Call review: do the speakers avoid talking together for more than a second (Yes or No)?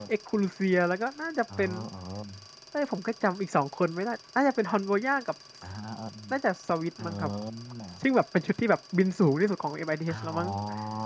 Yes